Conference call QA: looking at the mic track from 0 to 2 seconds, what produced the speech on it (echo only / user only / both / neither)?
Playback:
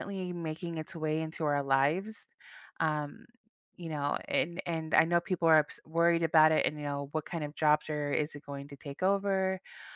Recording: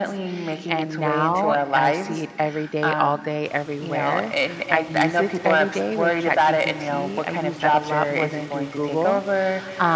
both